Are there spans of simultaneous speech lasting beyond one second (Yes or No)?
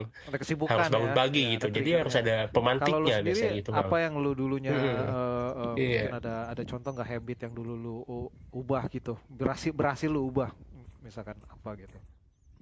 Yes